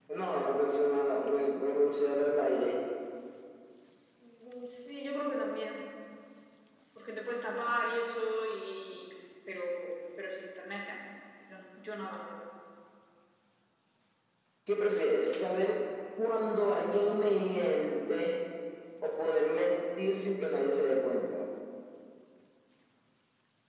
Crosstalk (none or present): none